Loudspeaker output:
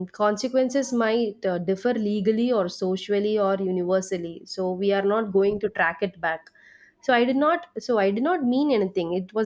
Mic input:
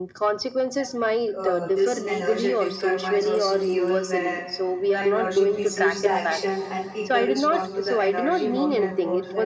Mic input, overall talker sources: both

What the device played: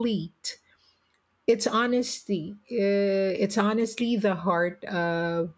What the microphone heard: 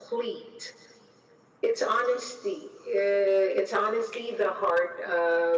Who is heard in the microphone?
echo only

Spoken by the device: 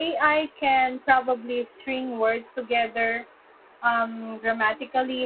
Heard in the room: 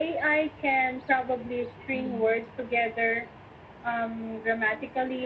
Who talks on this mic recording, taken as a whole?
both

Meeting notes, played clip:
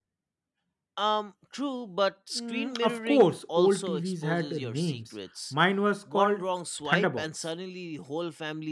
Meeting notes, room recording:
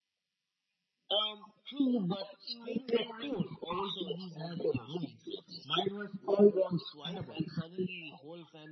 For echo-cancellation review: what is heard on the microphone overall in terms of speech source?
echo only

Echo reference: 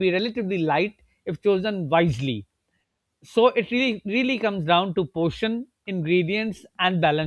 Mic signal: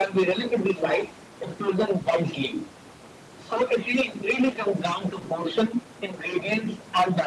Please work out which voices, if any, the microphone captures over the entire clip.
echo only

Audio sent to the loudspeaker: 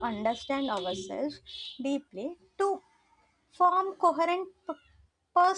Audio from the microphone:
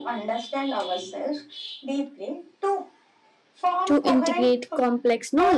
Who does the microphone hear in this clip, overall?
both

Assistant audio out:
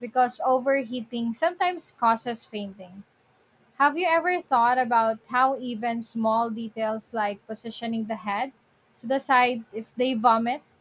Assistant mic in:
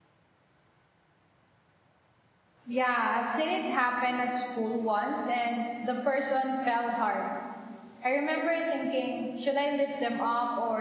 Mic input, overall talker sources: user only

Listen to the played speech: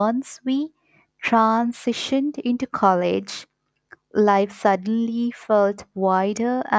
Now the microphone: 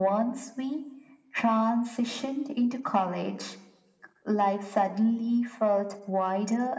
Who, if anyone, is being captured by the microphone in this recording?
echo only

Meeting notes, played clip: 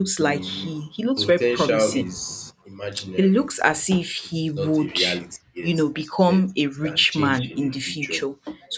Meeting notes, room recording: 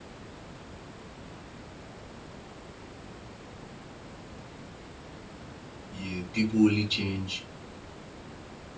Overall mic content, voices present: user only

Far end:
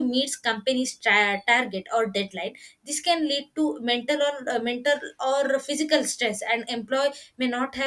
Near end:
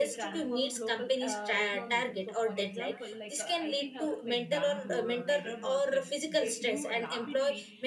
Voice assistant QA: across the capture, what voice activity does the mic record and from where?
both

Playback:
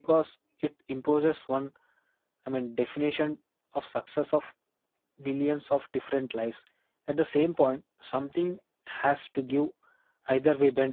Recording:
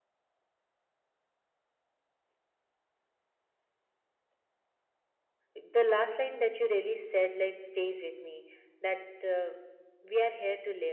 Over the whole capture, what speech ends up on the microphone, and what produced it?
user only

